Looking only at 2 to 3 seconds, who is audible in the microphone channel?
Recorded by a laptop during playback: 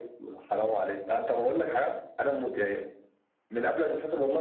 echo only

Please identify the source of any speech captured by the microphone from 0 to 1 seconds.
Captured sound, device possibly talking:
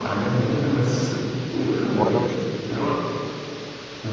echo only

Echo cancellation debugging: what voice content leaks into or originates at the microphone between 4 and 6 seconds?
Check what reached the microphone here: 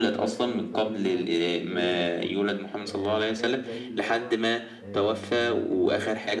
both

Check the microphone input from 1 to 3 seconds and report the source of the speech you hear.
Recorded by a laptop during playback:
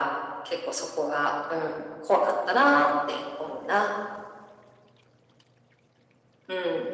echo only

